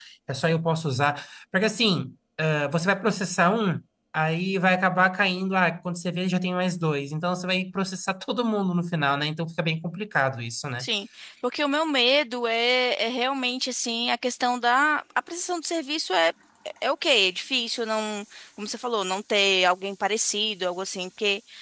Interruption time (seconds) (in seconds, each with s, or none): none